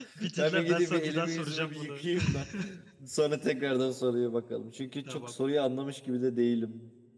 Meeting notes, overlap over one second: present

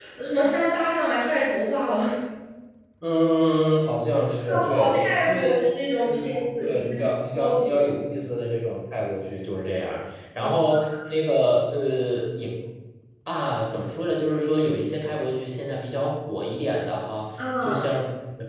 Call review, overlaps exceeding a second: present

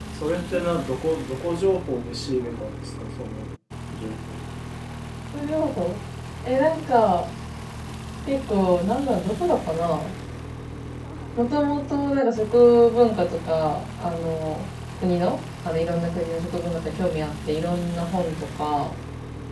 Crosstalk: none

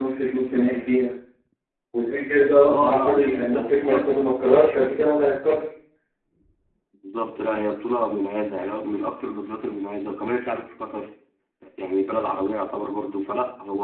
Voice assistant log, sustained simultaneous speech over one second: present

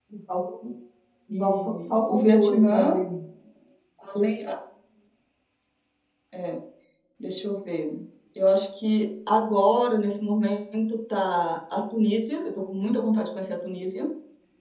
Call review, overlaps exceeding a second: present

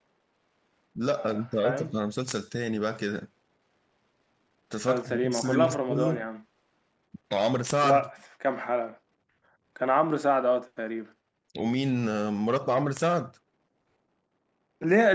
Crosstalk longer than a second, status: present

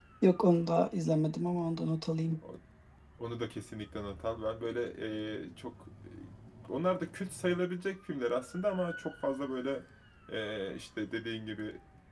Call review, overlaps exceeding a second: none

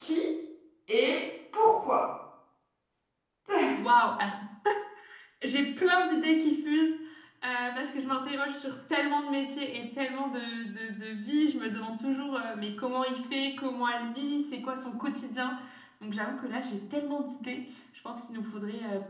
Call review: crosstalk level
none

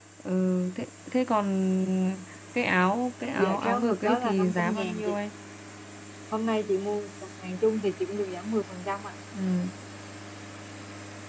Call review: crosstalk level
present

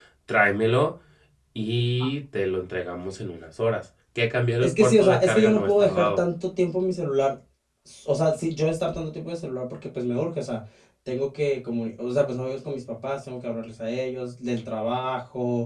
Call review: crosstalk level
present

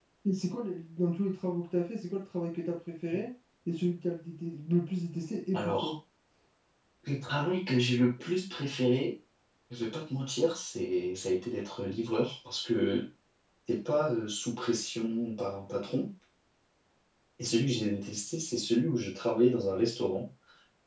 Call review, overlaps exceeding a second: none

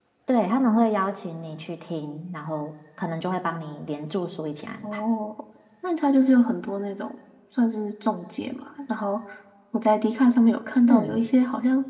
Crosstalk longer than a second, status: none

